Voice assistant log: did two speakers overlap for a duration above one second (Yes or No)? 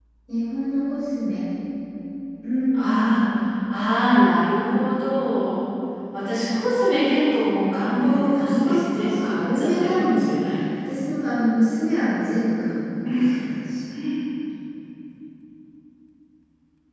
Yes